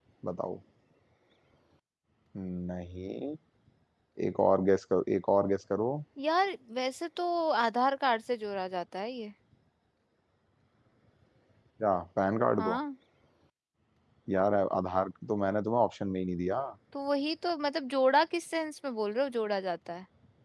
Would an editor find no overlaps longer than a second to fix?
Yes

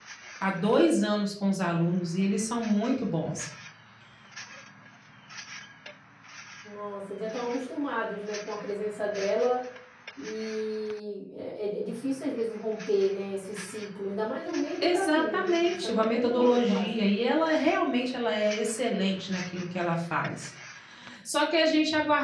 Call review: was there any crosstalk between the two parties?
Yes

